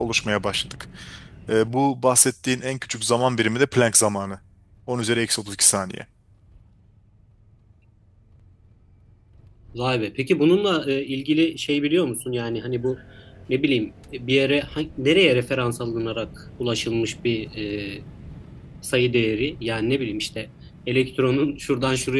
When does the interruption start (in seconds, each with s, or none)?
none